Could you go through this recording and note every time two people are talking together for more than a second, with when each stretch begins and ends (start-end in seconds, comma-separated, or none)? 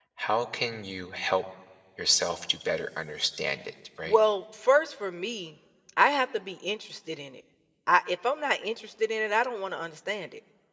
none